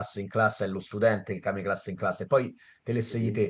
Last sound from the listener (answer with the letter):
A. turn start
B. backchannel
B